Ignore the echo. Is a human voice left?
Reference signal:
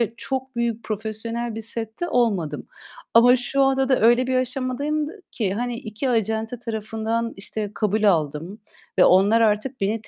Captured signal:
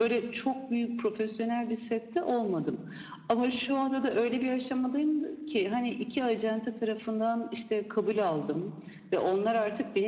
No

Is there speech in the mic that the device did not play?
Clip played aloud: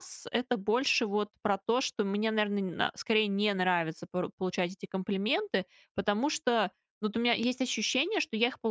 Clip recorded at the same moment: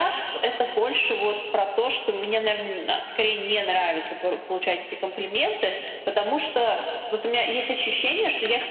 No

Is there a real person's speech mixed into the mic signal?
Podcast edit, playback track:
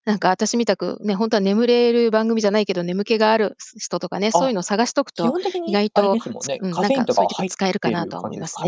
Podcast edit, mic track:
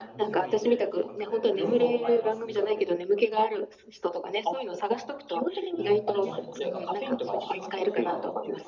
Yes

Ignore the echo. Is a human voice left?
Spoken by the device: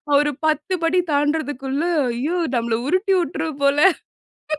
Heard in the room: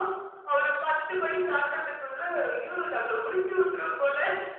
No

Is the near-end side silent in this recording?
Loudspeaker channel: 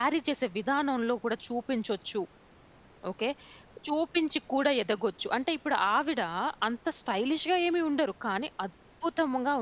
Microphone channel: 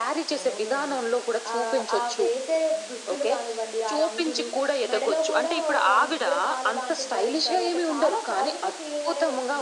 No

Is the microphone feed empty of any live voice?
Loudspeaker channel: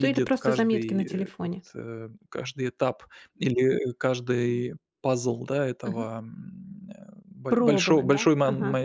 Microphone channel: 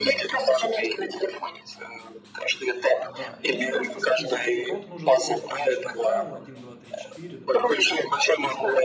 No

